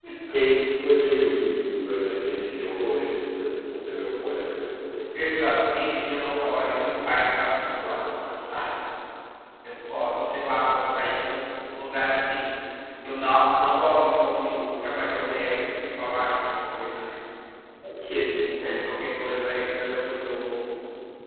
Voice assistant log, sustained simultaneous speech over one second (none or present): none